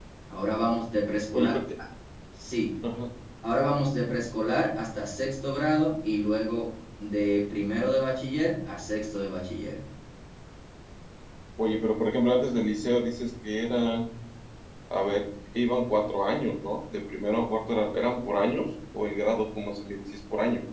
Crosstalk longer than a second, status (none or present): none